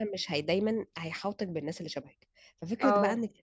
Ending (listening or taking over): listening